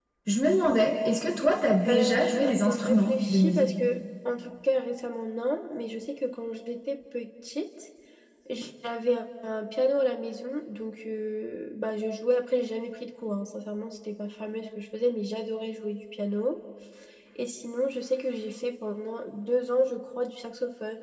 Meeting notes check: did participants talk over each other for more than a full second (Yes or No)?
Yes